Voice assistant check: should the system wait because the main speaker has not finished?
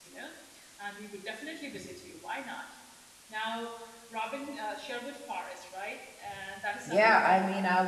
No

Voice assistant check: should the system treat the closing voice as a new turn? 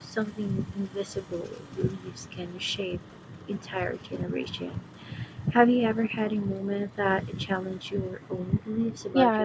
Yes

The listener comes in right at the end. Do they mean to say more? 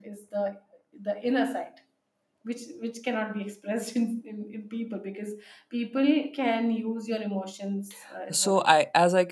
Yes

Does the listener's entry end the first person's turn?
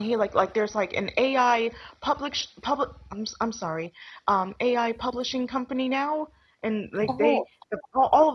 No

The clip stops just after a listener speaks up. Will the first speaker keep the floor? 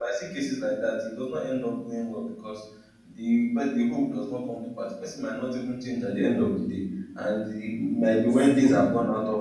Yes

